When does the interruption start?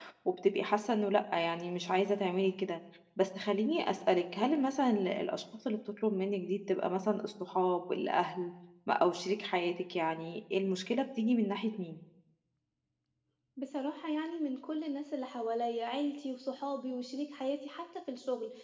none

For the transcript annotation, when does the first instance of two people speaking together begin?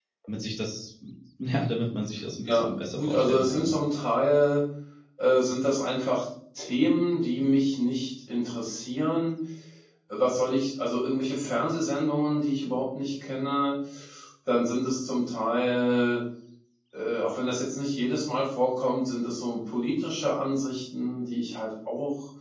2.4 s

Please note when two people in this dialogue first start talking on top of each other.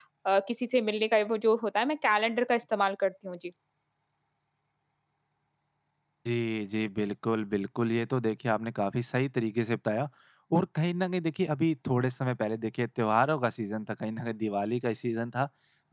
none

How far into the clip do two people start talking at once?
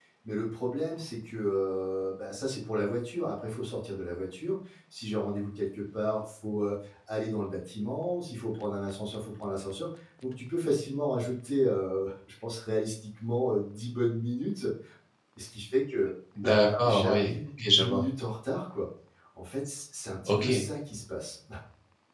16.4 s

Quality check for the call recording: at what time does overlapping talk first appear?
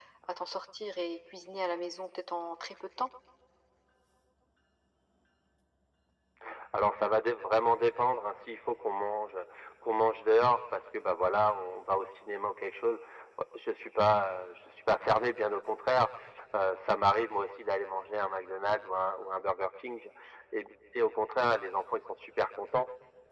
none

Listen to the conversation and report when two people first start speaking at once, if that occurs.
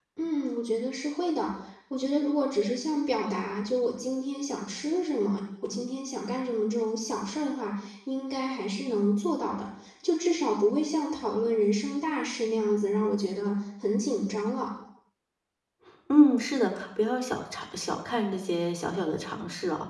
none

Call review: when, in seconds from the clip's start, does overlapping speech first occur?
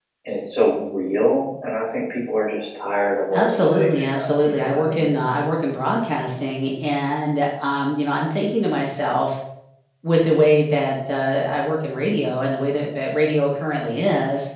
3.3 s

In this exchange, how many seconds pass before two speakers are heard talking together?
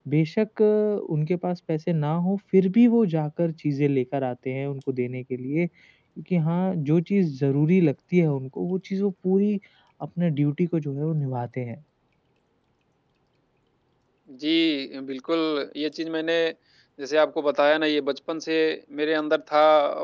none

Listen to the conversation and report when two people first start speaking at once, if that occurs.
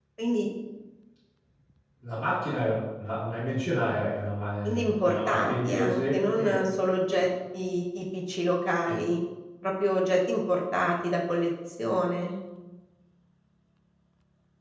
4.6 s

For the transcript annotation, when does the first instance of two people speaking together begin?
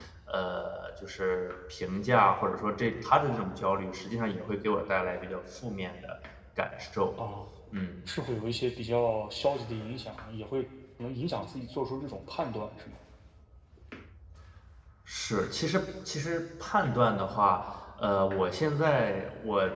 none

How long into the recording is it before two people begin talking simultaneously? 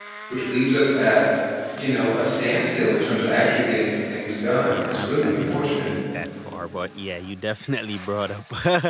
4.7 s

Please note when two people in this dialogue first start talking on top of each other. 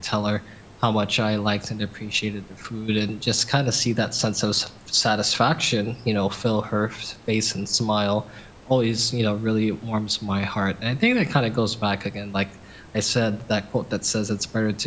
none

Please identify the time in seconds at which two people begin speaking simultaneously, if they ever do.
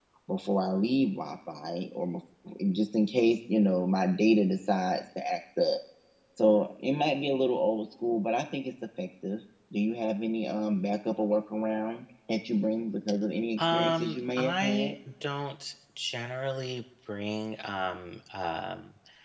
13.6 s

